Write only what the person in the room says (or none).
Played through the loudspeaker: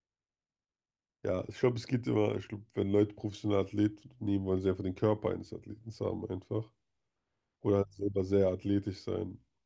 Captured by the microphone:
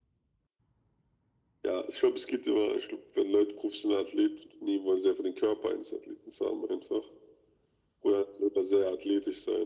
none